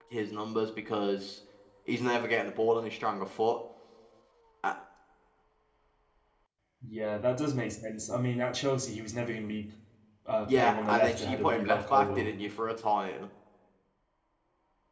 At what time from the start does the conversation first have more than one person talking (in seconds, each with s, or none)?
10.5 s